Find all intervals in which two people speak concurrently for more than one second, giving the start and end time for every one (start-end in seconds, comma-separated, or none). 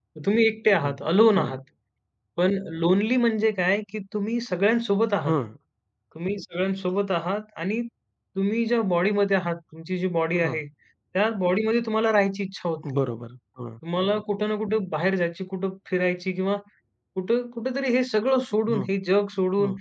none